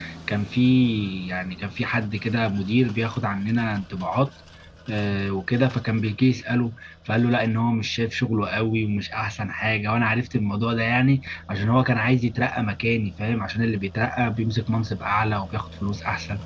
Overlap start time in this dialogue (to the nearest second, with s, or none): none